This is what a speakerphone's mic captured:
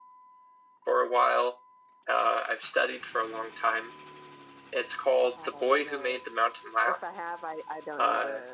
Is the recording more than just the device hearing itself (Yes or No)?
Yes